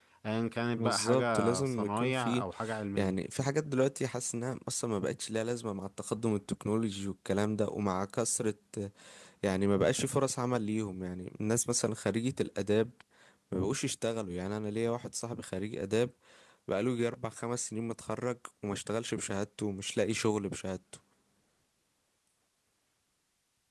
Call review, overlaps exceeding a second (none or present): present